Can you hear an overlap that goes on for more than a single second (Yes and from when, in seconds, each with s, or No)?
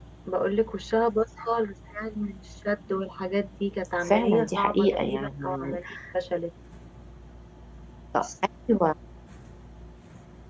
Yes, from 4.0 s